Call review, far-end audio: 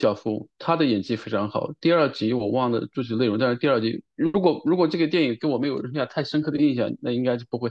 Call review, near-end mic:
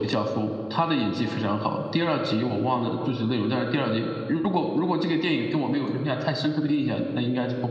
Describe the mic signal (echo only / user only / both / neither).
echo only